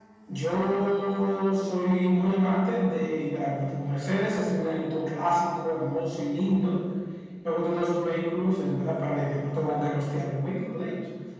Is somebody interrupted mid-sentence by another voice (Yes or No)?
No